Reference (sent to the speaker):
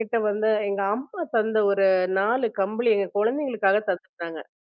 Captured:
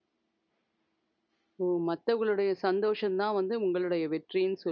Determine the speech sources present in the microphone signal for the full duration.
user only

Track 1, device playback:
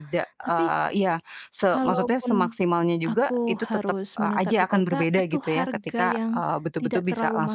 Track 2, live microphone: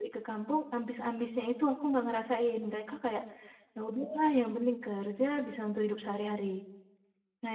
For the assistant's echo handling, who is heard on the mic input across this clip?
user only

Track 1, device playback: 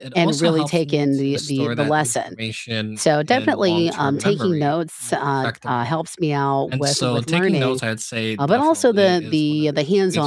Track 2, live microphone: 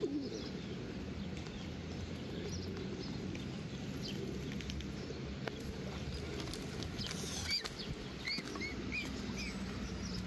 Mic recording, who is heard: neither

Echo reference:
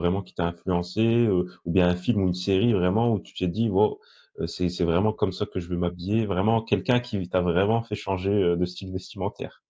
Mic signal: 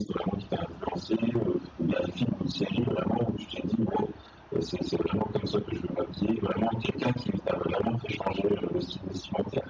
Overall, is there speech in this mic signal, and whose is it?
echo only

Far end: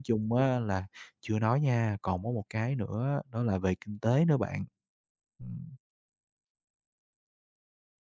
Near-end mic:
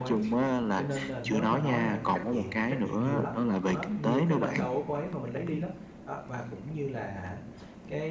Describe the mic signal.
both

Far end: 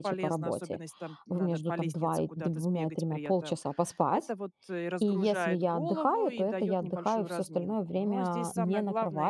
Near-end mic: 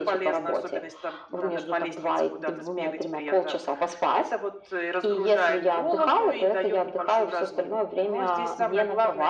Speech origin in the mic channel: echo only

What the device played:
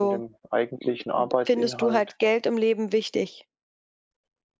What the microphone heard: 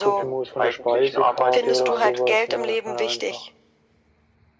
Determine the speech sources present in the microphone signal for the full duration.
both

